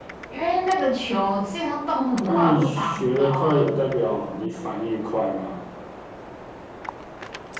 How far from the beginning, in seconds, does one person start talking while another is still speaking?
2.2 s

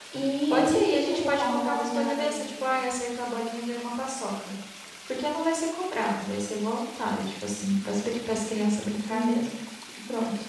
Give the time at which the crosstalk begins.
0.5 s

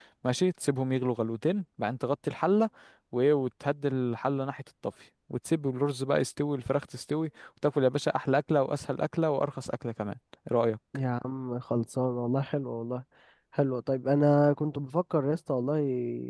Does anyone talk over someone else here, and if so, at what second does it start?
none

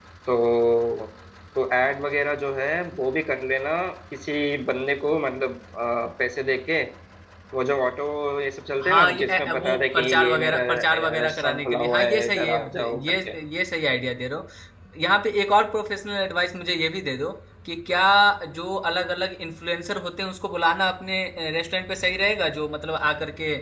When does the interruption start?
8.8 s

